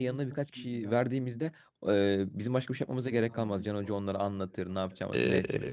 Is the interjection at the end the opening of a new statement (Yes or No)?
Yes